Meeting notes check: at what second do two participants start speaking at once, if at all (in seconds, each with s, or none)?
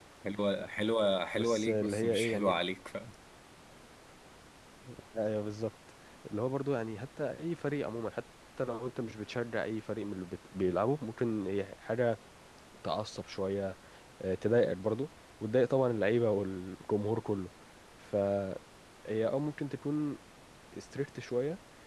1.3 s